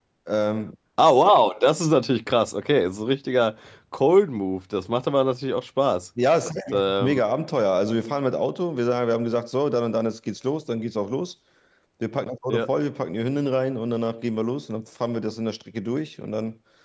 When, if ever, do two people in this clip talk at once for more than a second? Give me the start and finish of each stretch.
none

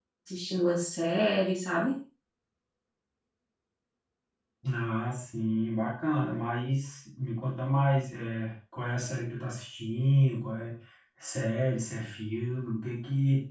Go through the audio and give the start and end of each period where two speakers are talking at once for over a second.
none

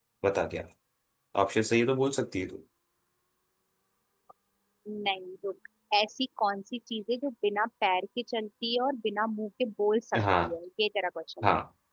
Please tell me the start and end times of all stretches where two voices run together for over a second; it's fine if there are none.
none

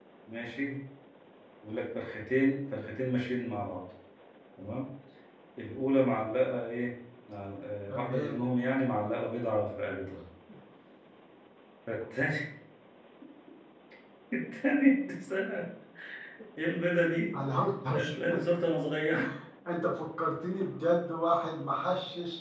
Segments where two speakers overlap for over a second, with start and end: none

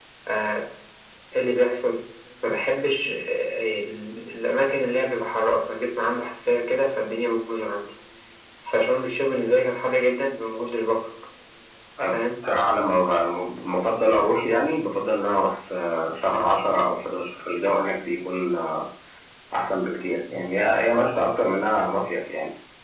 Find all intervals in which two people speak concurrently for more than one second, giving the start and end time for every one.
none

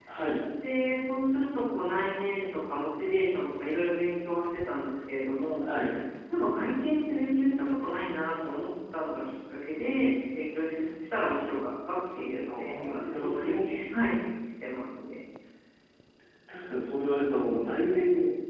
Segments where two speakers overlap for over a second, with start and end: 12.5-13.8

